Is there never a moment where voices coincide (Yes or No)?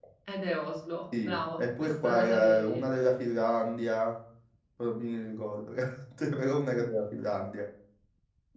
No